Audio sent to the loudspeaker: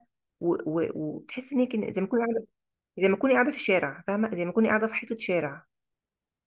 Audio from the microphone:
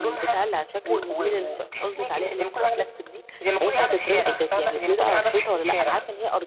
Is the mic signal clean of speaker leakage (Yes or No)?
No